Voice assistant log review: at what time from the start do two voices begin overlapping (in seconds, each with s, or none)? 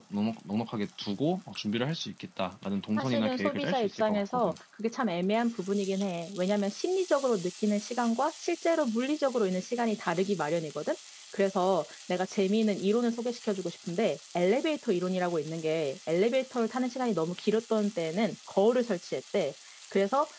3.0 s